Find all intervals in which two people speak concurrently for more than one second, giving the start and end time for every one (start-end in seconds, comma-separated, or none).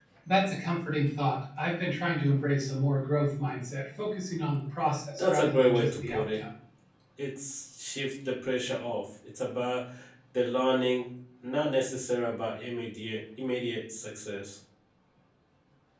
5.2-6.4